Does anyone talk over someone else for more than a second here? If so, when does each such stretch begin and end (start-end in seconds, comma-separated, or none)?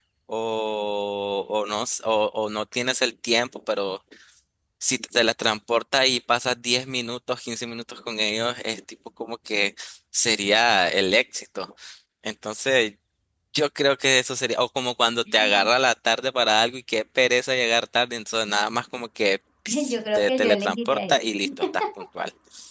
19.7-21.1